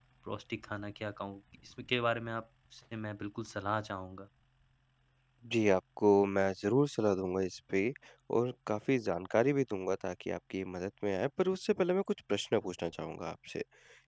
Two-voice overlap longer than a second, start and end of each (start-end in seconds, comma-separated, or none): none